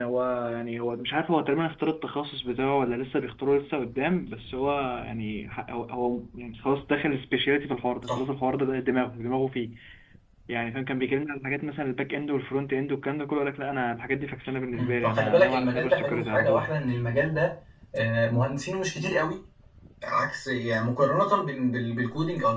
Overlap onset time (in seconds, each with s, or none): 14.7 s